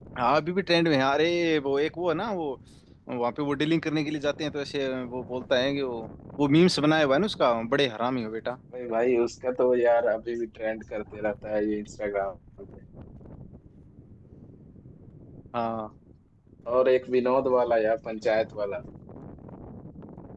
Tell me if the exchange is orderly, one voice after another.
Yes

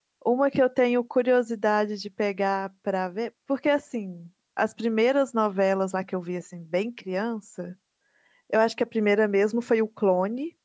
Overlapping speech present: No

